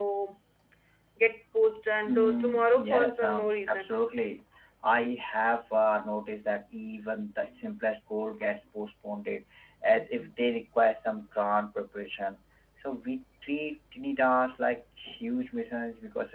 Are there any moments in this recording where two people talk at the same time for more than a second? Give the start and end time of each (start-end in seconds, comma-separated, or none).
2.1-3.9